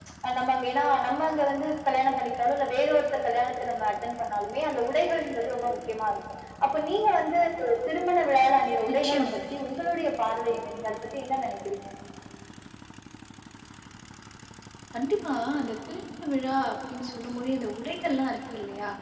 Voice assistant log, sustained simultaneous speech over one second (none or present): none